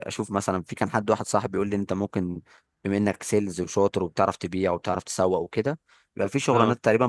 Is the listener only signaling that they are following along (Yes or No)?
Yes